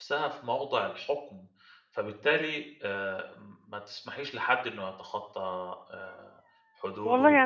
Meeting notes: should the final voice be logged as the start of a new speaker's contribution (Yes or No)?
Yes